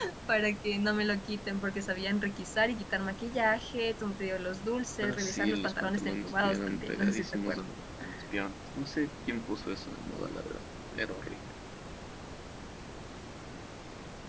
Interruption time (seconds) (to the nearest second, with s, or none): 5 s